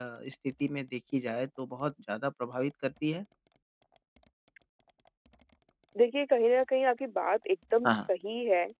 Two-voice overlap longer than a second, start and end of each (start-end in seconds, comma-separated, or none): none